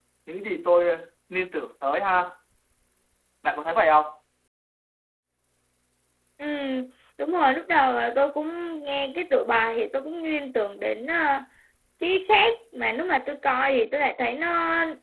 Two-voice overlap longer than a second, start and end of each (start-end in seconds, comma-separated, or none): none